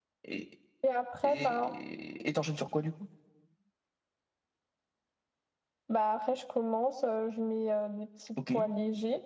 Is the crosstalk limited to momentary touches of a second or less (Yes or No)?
Yes